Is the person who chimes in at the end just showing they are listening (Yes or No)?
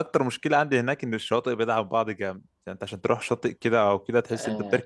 No